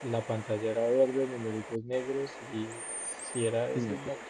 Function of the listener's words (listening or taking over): listening